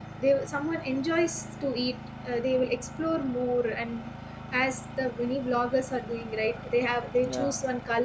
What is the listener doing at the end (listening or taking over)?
listening